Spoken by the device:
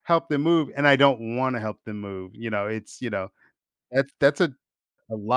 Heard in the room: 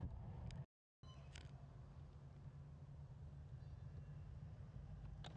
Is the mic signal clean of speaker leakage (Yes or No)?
Yes